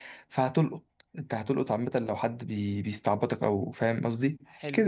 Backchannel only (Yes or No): No